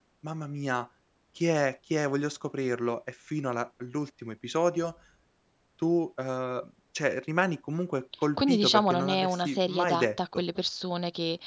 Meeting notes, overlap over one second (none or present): present